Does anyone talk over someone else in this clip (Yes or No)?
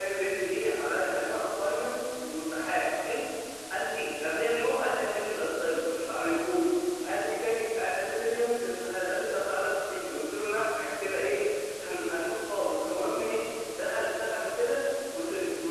No